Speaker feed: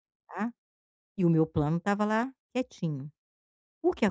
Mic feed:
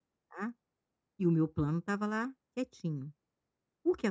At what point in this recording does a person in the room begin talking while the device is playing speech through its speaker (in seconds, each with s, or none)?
none